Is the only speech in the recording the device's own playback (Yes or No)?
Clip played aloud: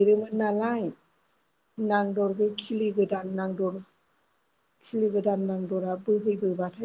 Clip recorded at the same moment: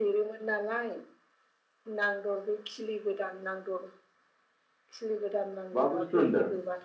No